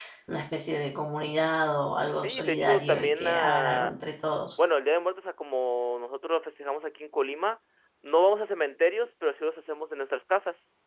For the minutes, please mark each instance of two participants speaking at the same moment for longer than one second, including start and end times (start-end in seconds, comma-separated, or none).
2.1-3.9